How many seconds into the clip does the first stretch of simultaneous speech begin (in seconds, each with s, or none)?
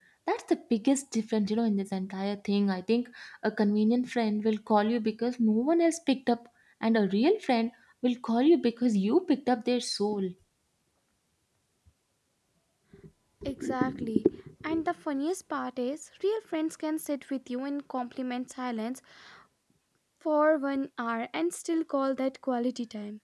none